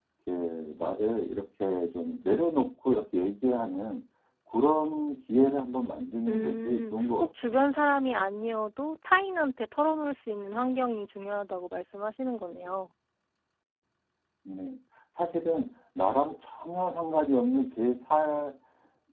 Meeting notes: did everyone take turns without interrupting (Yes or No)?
No